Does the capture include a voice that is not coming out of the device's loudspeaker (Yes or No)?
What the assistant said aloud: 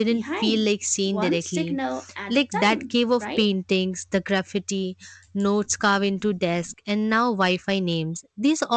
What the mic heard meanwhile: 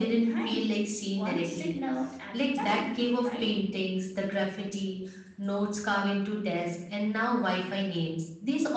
No